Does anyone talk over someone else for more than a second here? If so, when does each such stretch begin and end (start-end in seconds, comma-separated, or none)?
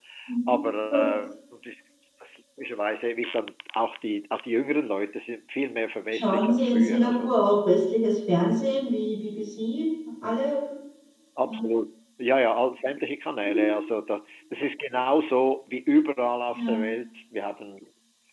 6.1-7.3